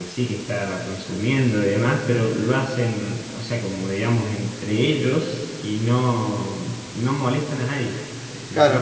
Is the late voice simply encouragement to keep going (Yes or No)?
No